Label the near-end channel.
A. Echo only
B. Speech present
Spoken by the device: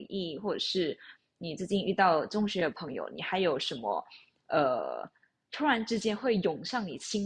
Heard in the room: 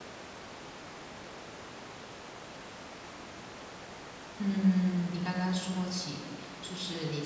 B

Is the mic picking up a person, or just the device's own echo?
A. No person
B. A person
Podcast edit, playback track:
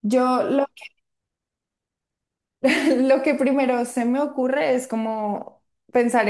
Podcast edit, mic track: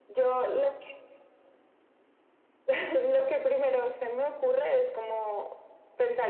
A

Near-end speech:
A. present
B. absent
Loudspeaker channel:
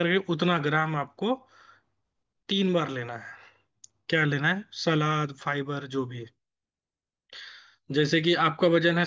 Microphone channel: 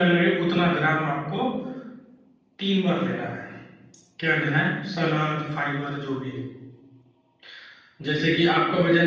B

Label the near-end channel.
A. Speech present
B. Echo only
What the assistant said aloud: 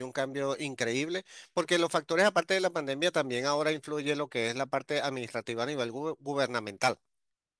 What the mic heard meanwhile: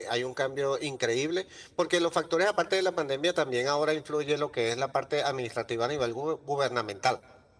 B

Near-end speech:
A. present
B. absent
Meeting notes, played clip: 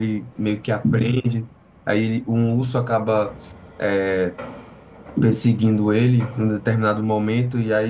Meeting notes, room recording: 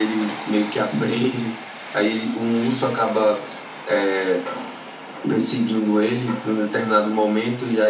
B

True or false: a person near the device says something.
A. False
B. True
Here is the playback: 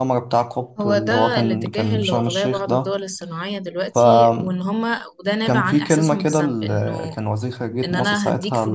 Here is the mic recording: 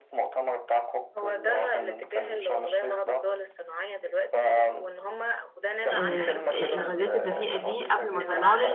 B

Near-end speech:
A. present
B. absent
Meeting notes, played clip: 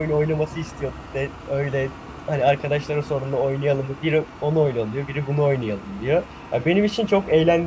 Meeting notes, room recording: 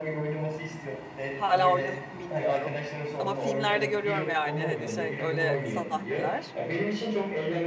A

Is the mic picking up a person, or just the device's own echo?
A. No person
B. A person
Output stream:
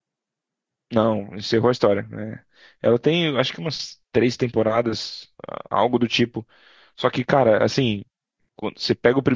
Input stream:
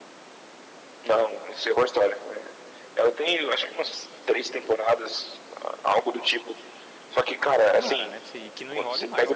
B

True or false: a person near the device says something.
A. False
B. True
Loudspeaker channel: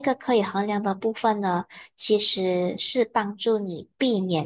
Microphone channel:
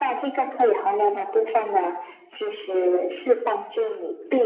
A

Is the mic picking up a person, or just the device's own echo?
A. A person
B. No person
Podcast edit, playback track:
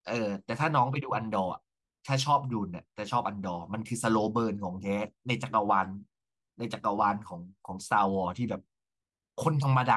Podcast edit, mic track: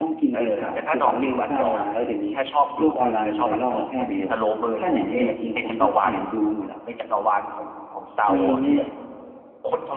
A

